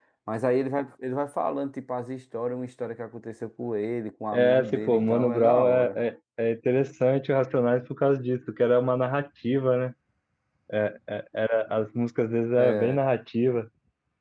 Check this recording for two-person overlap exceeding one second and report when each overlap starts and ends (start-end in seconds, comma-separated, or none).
4.3-6.0